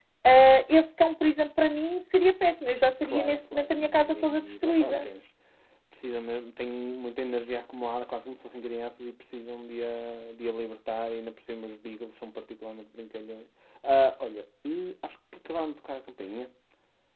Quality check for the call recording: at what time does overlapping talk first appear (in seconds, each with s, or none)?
3.0 s